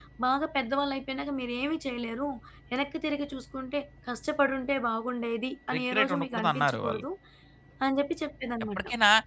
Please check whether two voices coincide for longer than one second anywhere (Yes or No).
Yes